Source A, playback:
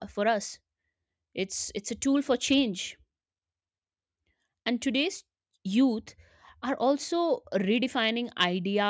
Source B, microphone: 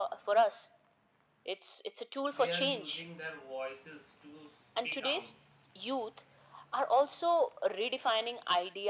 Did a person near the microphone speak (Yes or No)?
Yes